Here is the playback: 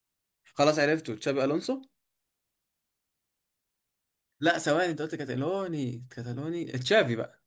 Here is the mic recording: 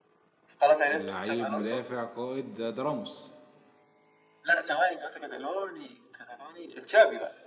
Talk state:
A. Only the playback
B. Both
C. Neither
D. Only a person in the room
B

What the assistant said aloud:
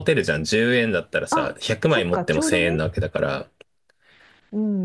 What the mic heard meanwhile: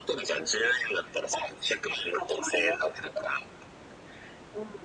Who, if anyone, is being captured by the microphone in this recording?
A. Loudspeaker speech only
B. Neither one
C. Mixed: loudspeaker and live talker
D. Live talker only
A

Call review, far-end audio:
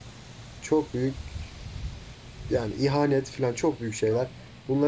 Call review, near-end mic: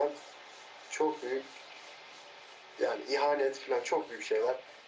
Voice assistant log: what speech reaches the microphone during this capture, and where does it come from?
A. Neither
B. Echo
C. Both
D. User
B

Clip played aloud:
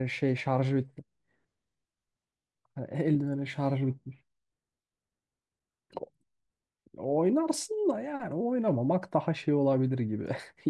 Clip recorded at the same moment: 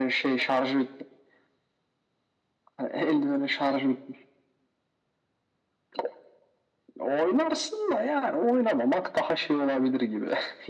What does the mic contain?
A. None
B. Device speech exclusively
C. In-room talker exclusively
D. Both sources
B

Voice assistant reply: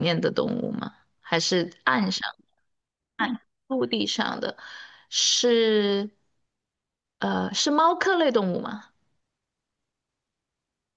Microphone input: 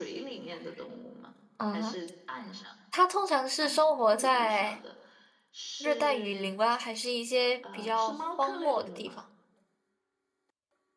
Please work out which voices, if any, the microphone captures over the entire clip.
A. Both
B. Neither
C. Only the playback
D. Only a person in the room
A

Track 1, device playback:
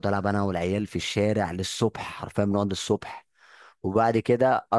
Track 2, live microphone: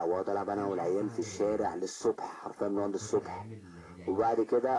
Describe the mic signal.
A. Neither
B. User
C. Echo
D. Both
D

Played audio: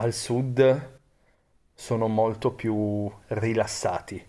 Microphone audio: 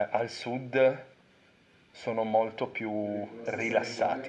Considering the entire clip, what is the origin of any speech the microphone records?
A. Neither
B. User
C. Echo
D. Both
D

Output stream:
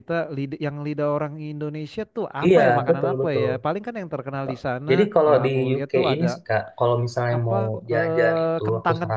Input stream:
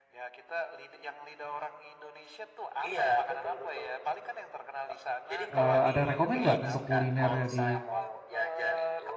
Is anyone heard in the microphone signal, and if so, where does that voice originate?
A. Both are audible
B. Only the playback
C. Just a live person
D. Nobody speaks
A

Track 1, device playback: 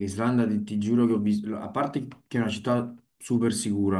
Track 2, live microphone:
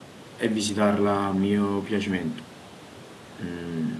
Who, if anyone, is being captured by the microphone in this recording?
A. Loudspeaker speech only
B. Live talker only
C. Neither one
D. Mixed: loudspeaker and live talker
B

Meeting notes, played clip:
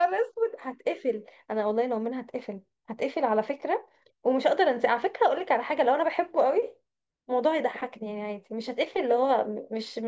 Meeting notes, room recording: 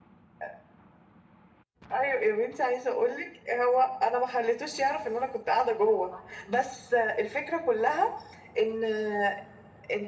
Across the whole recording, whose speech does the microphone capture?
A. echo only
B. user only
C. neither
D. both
B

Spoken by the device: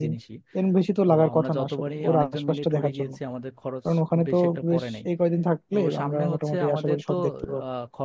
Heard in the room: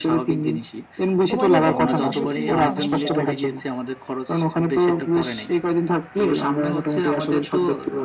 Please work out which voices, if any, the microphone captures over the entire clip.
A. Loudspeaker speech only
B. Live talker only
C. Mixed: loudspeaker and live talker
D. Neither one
C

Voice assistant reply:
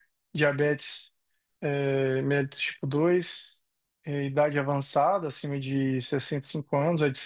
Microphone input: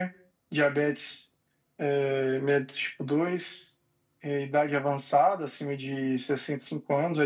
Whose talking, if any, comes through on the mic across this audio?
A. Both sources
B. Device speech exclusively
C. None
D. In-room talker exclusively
B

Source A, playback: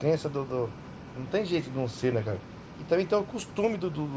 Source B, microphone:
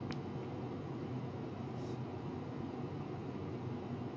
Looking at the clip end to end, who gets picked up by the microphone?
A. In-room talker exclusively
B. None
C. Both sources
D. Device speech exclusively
B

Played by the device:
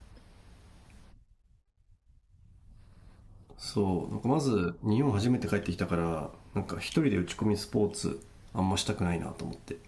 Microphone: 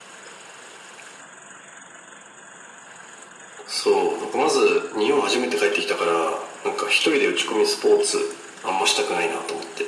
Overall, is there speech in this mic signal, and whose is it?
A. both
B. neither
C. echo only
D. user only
C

